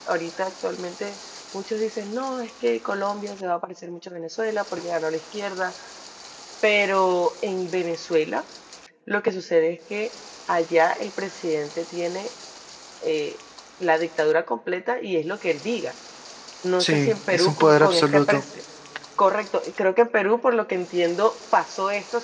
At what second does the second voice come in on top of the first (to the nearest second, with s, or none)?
17 s